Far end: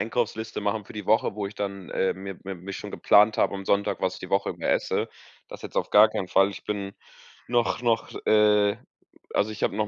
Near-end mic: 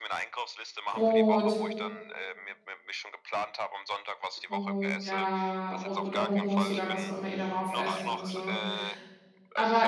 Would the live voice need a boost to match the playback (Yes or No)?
No